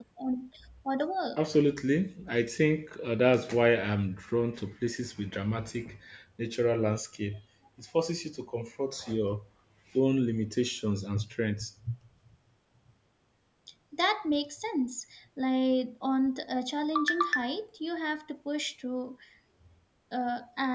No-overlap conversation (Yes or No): Yes